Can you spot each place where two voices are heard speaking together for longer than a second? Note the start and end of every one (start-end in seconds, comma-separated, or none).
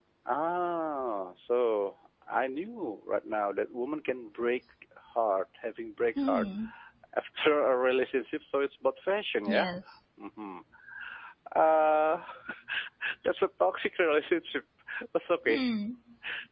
none